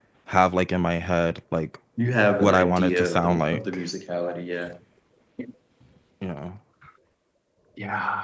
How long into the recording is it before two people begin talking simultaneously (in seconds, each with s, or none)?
2.4 s